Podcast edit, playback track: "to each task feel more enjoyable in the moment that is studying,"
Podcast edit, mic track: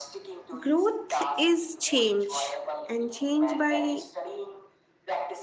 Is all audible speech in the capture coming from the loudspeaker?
No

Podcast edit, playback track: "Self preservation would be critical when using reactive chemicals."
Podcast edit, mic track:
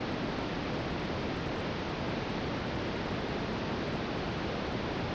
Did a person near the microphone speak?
No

